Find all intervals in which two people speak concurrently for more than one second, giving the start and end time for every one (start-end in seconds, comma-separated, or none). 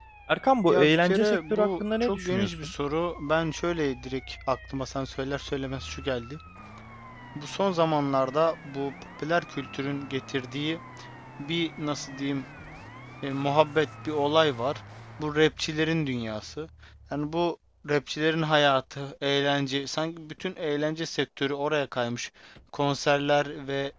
0.7-2.7